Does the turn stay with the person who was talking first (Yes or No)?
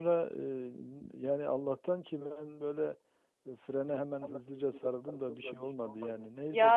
No